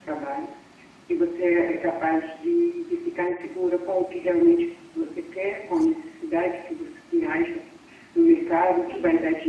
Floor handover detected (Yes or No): No